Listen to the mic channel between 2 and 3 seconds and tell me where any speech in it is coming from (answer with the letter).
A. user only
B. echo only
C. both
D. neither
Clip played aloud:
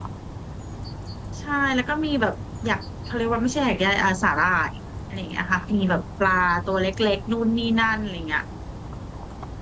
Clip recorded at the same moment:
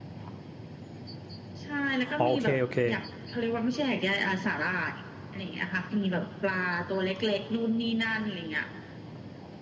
C